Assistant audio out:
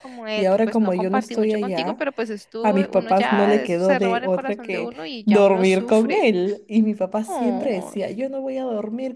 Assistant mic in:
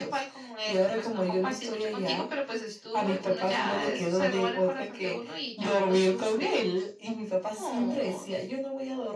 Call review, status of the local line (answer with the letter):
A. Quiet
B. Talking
A